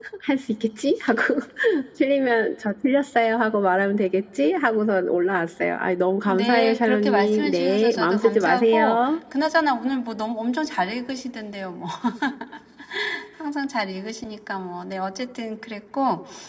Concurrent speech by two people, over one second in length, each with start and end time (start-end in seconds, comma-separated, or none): 6.3-9.0